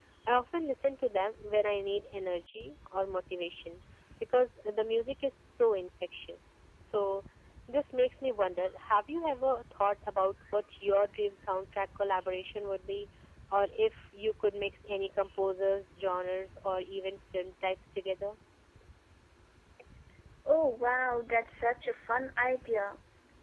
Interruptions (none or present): none